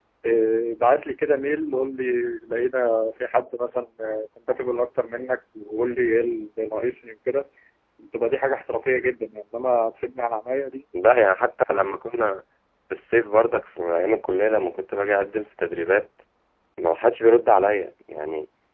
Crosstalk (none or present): none